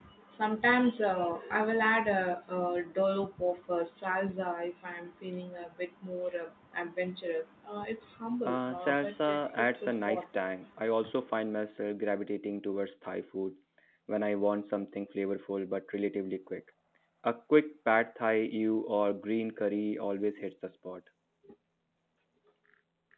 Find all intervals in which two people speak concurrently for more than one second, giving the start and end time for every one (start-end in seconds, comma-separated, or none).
8.4-10.2